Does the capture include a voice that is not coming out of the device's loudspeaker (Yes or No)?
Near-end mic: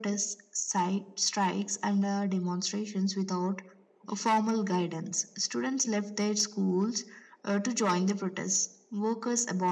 No